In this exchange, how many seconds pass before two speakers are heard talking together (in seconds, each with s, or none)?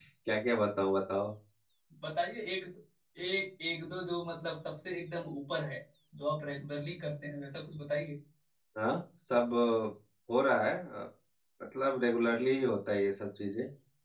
none